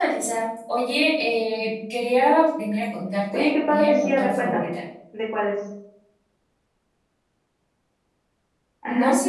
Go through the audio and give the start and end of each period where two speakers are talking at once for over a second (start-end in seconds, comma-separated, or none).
3.3-4.7